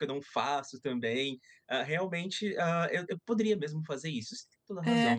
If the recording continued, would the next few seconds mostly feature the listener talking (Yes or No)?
Yes